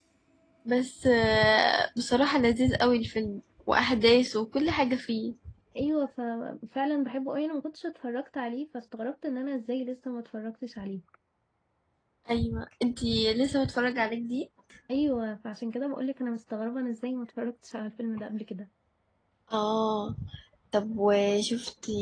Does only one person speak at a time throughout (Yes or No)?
Yes